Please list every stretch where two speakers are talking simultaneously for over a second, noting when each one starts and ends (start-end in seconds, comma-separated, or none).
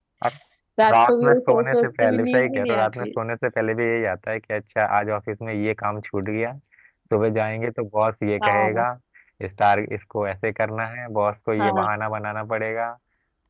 0.9-3.1